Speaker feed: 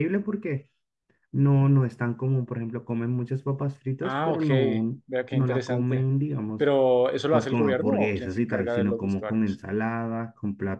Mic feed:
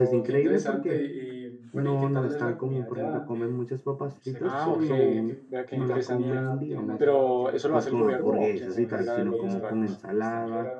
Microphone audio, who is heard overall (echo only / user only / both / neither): both